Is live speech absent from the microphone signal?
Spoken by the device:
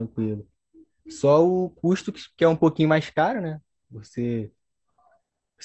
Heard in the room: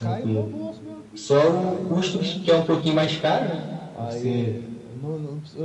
No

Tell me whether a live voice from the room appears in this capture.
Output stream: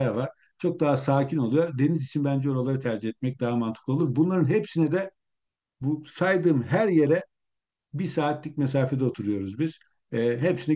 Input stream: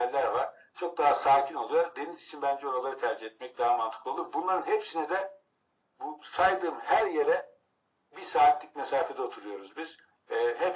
No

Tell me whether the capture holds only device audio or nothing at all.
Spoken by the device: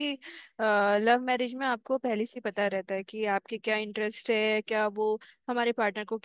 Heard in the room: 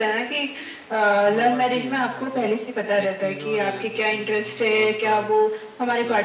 No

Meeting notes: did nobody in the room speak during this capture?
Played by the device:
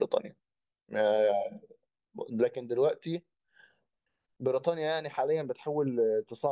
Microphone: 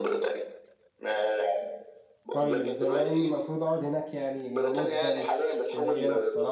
No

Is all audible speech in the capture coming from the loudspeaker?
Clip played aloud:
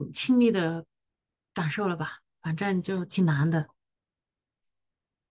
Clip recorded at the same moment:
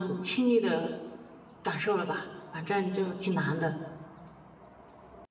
Yes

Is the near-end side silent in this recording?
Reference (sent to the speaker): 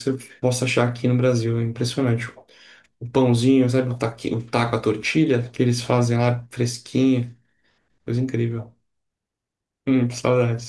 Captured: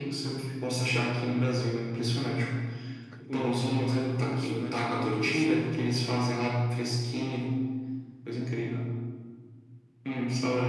No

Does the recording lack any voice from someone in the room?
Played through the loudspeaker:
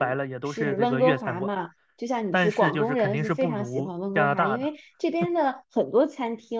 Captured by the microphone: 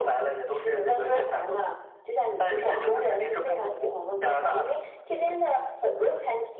Yes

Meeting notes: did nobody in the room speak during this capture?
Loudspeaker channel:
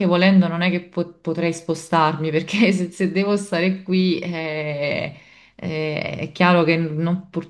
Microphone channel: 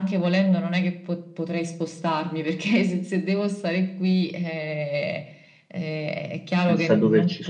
No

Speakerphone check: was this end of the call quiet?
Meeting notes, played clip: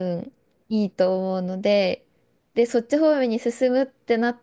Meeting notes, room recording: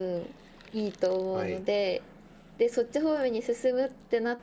No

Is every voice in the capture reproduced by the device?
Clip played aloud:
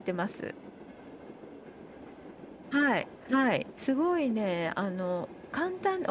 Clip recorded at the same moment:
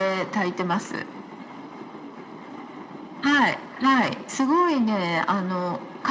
Yes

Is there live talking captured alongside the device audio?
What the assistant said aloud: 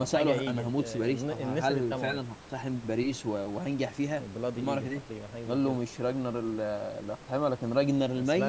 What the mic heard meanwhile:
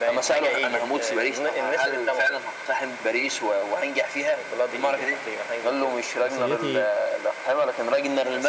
Yes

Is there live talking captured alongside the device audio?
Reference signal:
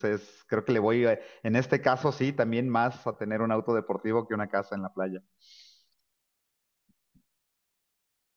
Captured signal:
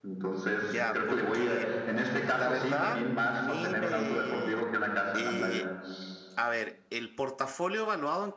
Yes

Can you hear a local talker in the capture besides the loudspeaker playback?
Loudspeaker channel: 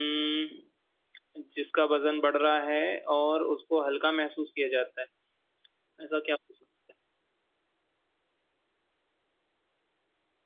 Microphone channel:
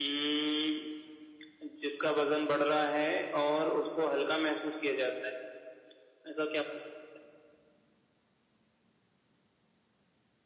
No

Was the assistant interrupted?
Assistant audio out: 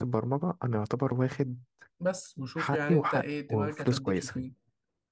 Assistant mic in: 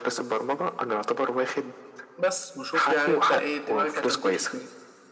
No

